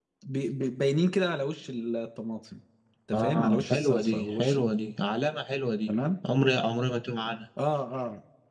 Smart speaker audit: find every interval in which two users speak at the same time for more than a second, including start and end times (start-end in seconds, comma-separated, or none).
3.1-4.6